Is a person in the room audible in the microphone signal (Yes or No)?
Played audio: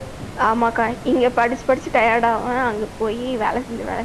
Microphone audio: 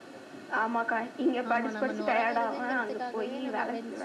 Yes